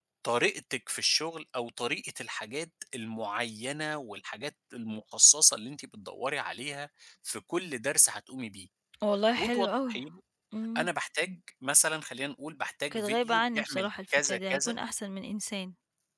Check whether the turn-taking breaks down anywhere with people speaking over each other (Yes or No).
Yes